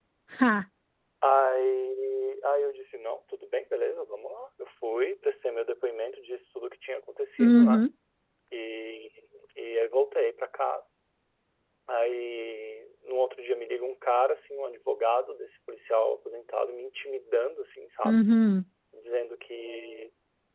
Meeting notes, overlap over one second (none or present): none